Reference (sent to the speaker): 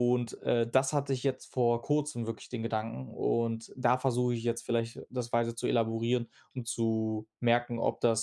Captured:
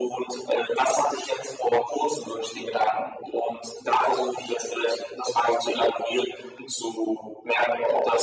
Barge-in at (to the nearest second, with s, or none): none